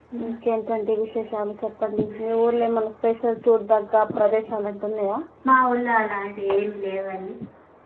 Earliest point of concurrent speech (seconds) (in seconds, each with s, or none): none